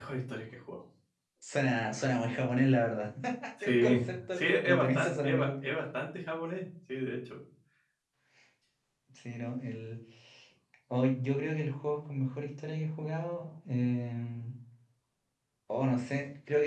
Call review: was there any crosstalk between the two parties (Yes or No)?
Yes